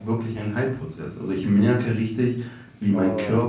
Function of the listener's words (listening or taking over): listening